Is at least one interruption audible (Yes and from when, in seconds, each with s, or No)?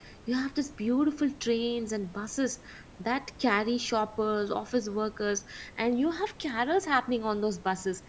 No